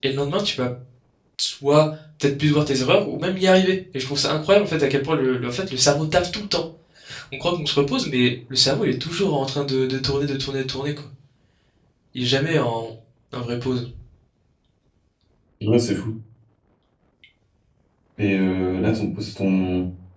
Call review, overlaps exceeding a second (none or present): none